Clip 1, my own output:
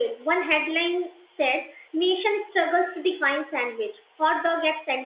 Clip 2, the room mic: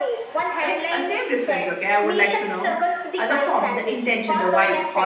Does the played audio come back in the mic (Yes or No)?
Yes